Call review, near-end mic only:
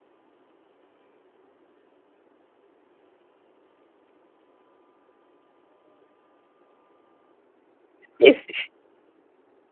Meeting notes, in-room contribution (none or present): present